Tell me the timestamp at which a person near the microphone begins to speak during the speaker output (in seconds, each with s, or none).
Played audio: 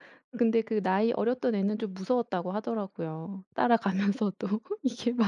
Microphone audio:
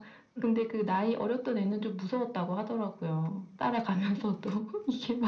none